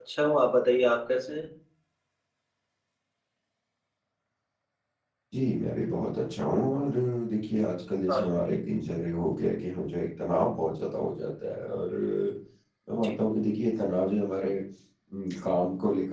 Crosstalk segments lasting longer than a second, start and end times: none

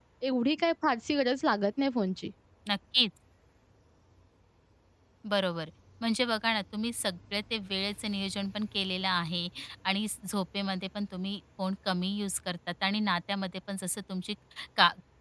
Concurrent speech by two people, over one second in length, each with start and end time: none

